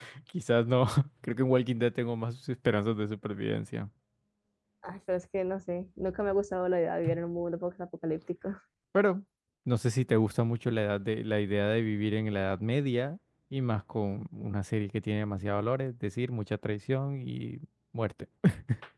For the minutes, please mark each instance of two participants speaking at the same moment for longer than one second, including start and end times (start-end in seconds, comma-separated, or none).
none